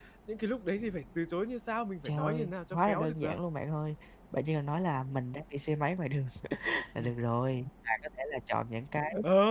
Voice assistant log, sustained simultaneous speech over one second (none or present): present